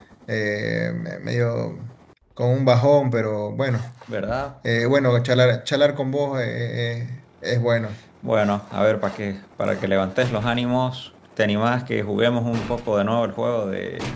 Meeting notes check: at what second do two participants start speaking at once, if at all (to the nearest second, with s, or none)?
none